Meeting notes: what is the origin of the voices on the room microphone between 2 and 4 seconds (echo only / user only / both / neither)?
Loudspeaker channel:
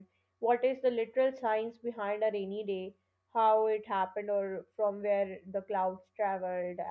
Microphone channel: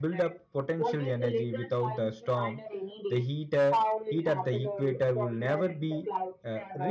both